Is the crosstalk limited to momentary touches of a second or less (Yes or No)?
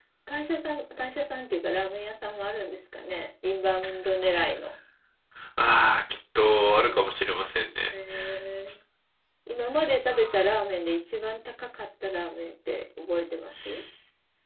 Yes